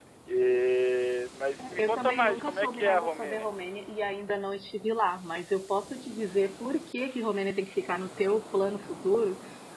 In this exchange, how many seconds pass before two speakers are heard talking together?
1.6 s

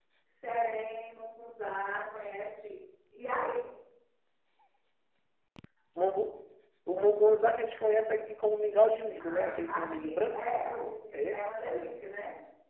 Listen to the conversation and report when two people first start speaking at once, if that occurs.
9.2 s

